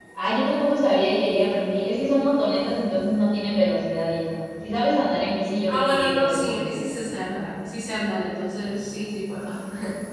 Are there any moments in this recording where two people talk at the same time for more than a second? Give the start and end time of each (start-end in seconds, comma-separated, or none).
5.7-6.9